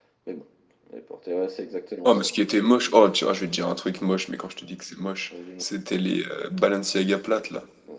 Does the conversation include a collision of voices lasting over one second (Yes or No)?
No